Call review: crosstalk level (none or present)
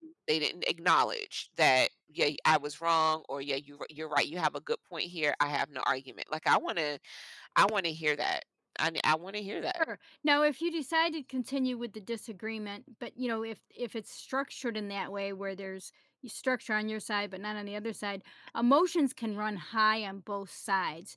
none